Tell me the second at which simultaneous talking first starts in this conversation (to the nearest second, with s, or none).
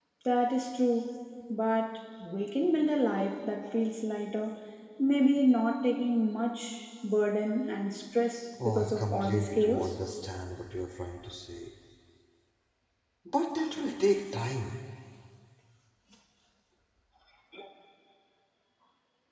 9 s